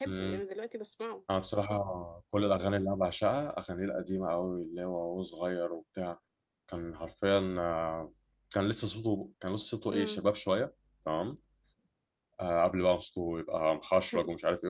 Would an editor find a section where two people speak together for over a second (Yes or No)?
No